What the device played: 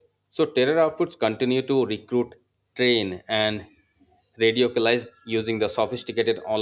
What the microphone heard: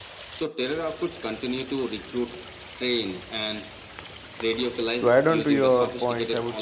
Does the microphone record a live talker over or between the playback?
Yes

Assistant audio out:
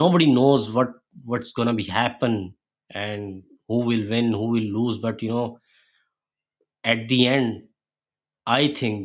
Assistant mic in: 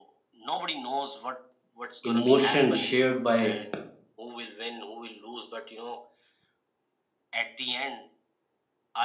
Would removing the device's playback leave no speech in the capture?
No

